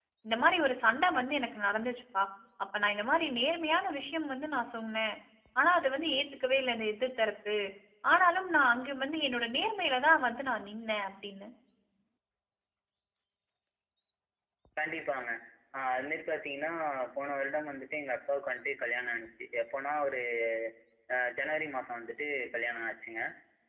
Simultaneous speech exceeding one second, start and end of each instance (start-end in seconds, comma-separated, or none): none